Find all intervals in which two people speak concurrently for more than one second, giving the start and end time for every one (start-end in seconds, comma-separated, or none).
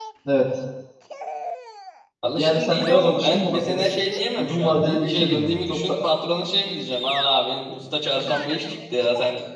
2.4-3.9, 4.4-6.0